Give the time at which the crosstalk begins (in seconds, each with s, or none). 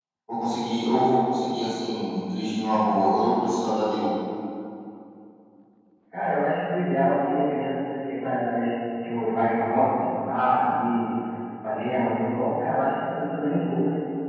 none